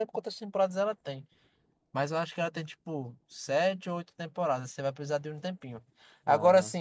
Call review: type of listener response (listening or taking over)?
listening